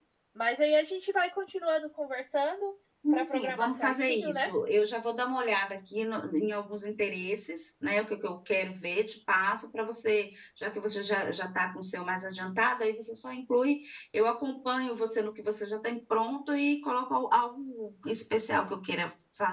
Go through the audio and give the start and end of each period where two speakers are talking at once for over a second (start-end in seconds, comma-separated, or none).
3.1-4.5